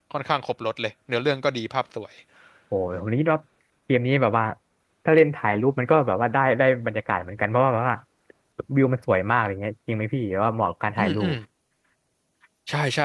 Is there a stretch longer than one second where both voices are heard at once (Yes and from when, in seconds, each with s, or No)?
No